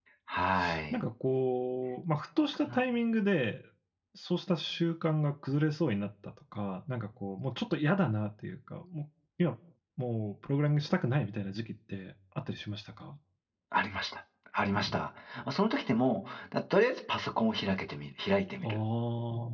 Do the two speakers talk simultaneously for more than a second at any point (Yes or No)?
No